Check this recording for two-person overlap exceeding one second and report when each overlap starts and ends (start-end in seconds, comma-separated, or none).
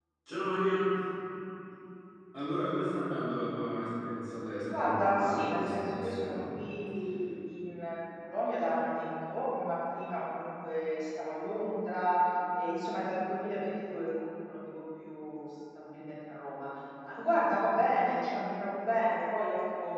4.8-6.5